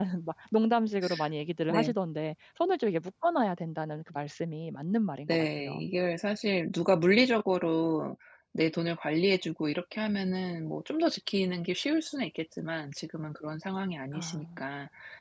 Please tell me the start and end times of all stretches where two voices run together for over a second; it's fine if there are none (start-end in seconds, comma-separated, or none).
none